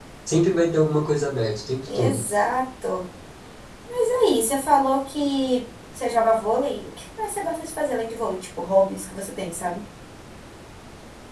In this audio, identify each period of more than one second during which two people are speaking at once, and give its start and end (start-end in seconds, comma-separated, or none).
none